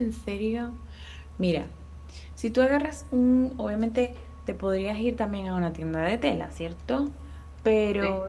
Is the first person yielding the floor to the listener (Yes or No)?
No